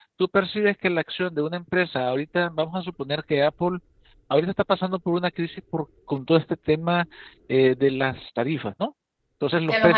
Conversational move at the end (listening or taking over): listening